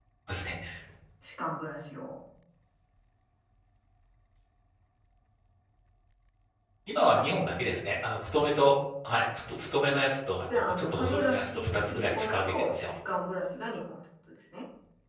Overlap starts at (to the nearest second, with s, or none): 10 s